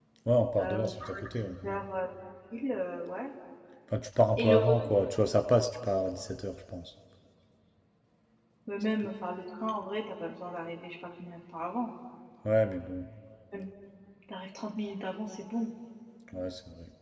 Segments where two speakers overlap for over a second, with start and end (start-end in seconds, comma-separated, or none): 0.6-1.8